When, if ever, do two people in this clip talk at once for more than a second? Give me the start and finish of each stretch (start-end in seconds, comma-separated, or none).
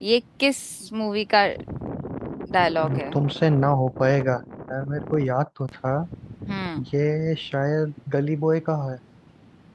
none